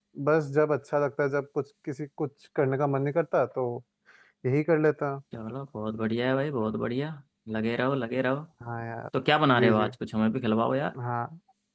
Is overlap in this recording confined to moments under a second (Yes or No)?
Yes